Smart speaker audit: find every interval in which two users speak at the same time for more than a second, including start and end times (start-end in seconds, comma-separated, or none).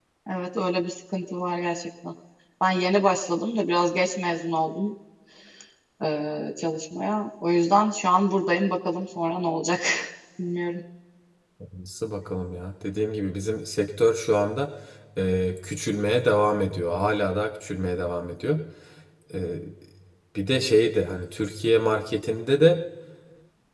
none